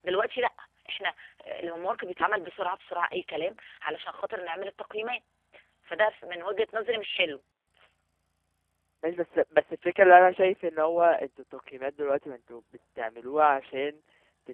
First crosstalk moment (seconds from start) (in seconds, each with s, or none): none